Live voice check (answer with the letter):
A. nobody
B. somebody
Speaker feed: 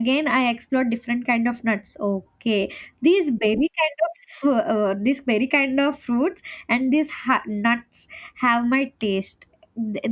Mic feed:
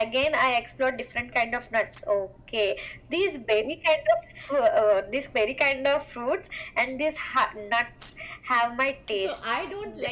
B